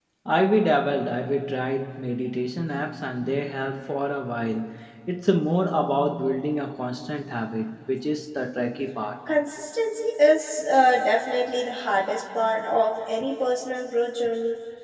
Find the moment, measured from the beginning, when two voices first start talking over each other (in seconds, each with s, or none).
none